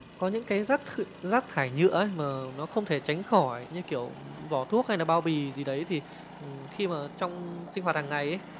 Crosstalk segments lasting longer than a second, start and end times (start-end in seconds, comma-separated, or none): none